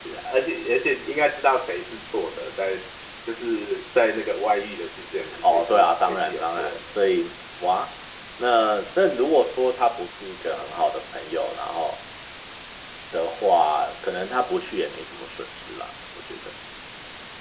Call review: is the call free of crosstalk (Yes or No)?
No